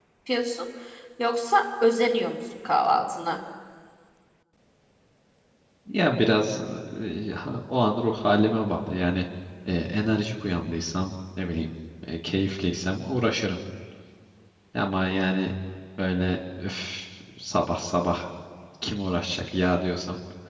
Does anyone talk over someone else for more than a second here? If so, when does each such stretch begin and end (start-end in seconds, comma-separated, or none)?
none